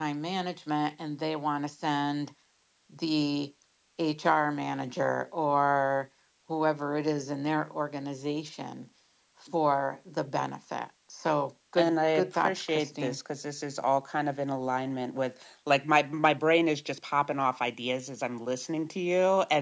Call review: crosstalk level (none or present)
present